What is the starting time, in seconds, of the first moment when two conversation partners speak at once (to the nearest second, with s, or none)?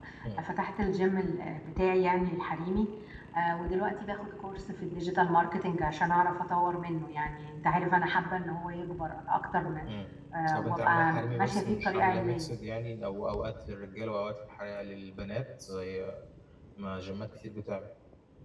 11 s